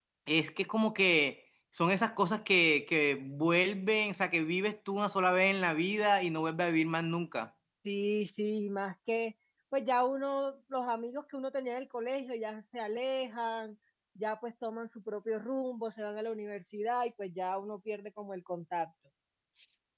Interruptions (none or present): none